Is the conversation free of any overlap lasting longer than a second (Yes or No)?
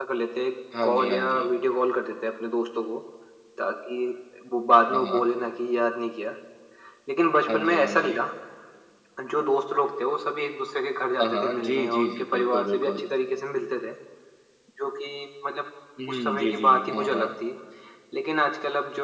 No